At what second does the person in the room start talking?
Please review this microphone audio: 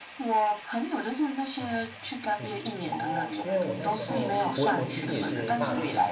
2 s

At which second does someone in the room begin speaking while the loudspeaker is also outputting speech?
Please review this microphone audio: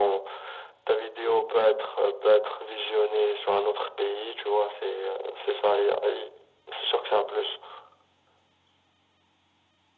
none

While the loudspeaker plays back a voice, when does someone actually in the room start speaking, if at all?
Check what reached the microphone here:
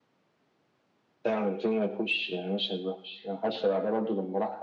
none

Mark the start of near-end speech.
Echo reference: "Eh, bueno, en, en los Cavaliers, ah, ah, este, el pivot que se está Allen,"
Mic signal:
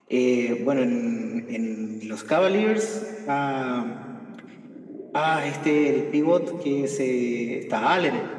none

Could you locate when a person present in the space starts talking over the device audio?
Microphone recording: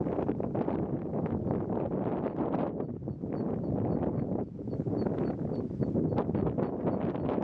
none

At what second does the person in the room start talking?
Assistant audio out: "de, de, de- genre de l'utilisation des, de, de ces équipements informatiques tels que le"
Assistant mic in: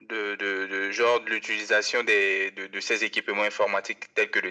none

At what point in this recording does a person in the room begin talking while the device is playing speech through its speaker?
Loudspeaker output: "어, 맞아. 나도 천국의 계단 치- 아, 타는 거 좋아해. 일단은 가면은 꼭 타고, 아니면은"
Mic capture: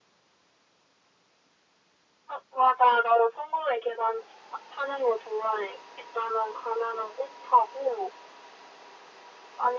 none

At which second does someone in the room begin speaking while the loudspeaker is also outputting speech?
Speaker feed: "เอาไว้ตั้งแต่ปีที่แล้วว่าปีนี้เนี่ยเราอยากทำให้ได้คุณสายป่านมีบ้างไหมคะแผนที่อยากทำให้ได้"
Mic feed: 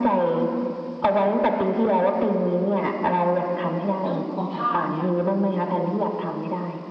4 s

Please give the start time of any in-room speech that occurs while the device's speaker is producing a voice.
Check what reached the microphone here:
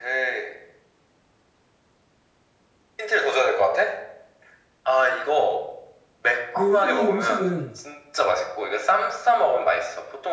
6 s

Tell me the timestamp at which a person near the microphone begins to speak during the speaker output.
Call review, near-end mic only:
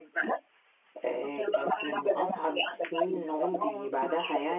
1 s

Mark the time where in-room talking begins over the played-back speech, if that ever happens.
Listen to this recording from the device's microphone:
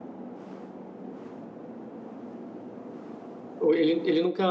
4 s

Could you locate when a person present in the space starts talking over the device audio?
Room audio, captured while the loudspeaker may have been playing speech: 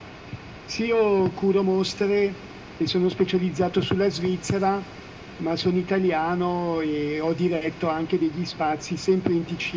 none

